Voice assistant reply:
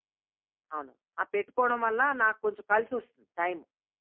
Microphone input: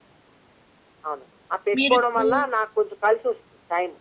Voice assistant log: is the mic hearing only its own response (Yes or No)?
No